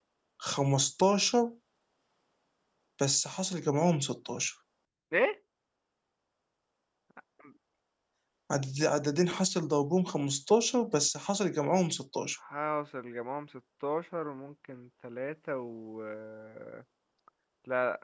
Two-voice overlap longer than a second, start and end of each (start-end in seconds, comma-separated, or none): none